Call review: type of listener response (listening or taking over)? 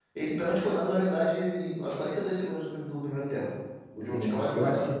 taking over